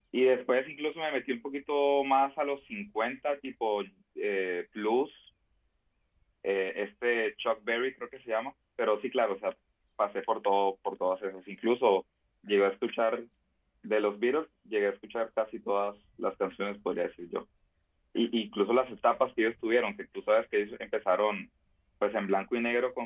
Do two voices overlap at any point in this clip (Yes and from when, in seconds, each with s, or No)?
No